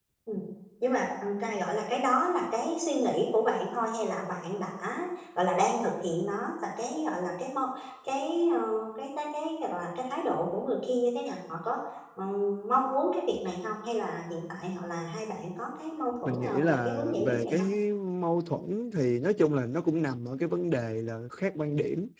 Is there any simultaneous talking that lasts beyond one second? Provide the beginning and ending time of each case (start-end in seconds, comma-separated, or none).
16.2-17.7